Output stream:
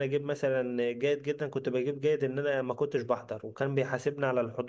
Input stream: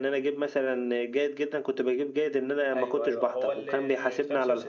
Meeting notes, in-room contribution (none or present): present